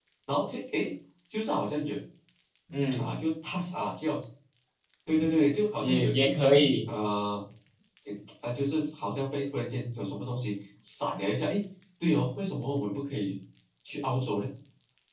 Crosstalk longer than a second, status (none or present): none